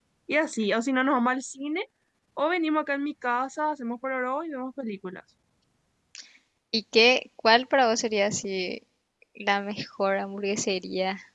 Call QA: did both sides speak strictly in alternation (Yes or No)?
Yes